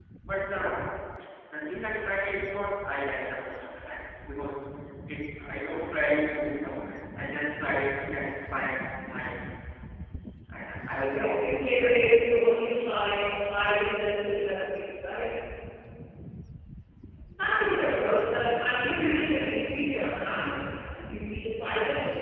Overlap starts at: 11.0 s

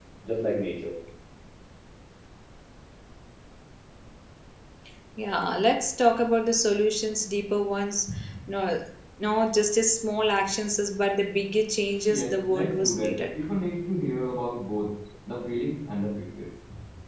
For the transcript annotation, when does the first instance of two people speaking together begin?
12.1 s

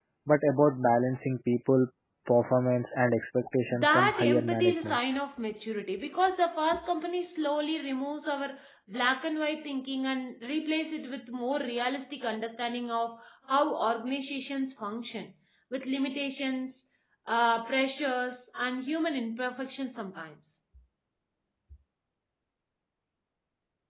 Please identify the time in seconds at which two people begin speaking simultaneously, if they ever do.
3.7 s

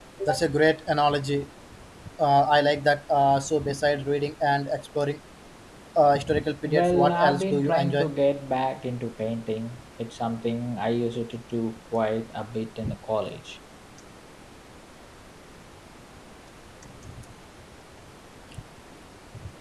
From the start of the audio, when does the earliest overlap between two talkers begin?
6.7 s

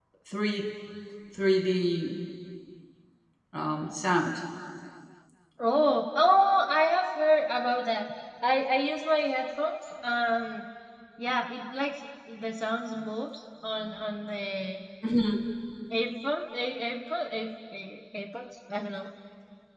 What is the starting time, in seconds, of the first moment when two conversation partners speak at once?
none

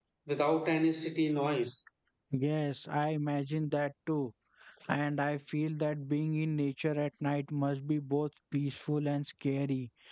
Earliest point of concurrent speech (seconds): none

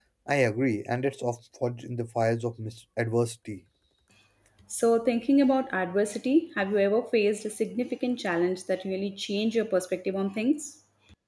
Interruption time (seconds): none

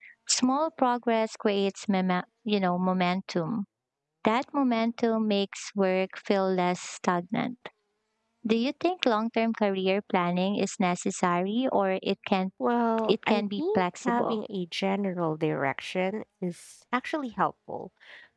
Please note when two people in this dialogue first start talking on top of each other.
13.1 s

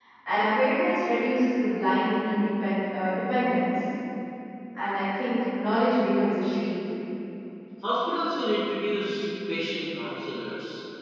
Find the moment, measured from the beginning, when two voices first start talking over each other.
none

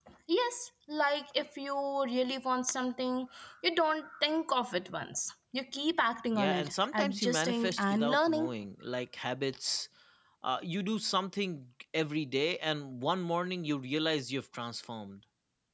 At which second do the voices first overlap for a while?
6.3 s

